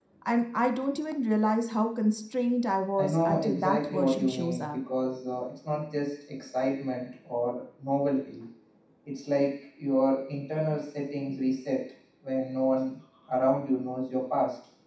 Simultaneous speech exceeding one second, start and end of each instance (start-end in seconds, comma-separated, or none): 3.0-4.8